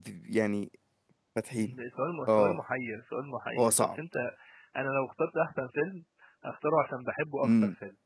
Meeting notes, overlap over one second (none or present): none